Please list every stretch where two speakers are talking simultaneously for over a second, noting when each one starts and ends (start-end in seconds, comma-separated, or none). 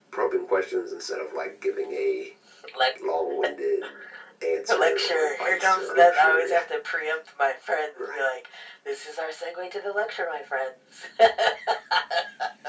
4.7-6.6